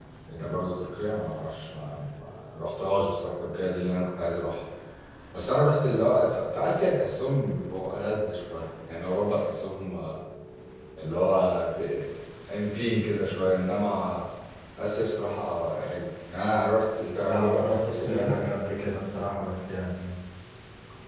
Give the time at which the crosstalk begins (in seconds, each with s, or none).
17.2 s